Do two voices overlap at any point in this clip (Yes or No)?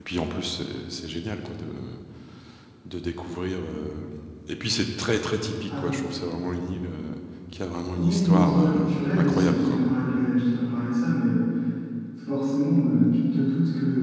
Yes